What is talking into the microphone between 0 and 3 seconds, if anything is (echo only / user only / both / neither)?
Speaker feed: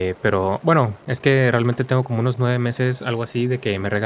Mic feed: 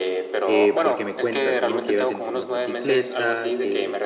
both